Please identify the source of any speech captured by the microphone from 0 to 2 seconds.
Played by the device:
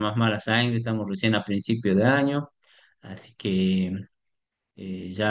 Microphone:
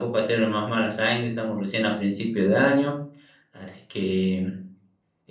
echo only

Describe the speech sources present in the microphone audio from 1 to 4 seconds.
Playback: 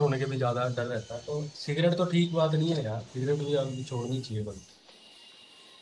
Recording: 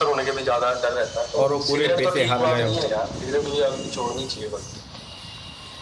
both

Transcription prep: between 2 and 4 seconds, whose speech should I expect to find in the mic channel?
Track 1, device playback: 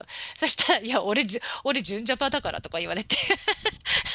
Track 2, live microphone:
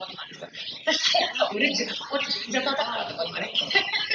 both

